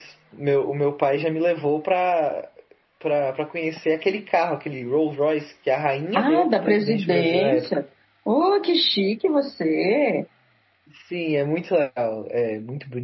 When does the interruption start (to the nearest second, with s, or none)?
6 s